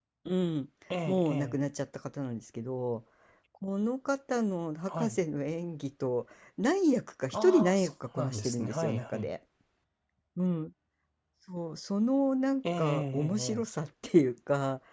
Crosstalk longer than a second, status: present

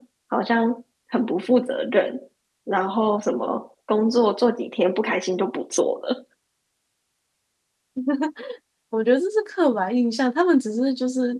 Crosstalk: none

